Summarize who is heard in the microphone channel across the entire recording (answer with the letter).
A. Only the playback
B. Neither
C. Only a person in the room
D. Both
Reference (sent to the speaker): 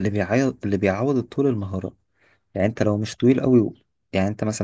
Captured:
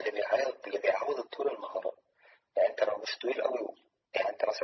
A